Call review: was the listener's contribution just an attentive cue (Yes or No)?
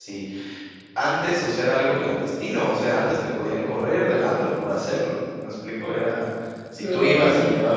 Yes